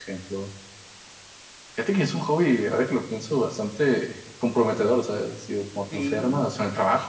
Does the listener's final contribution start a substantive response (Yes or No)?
No